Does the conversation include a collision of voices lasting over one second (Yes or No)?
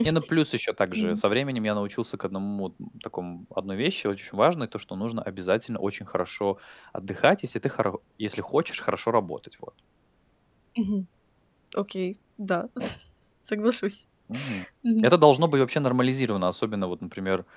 No